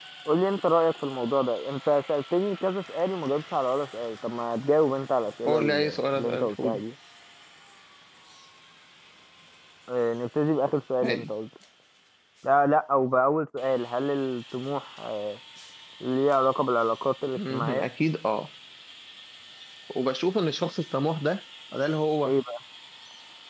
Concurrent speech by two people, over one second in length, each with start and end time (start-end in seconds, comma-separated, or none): 5.4-6.8